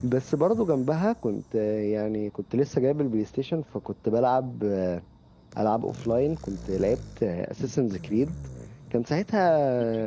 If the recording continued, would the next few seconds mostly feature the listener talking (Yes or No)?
No